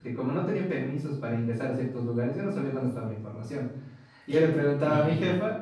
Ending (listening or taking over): listening